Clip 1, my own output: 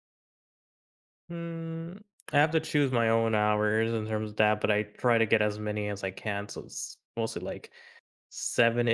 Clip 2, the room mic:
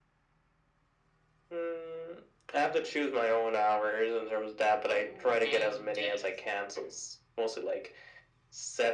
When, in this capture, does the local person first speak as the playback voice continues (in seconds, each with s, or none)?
4.9 s